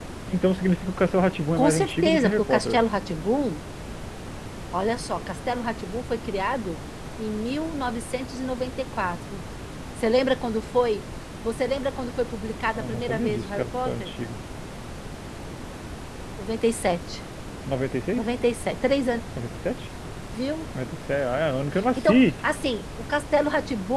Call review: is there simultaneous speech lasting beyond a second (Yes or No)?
Yes